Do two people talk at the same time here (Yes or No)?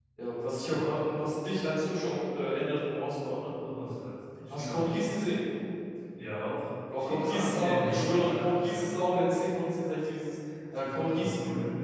Yes